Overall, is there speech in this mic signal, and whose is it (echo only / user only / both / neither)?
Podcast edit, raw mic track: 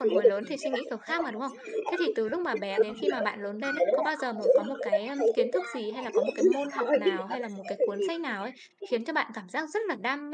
both